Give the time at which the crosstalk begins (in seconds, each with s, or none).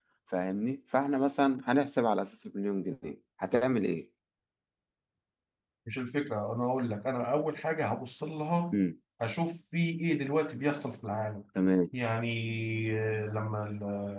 none